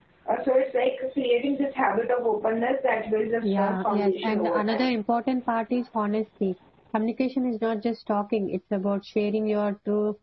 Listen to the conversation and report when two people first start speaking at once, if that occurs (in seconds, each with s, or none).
3.4 s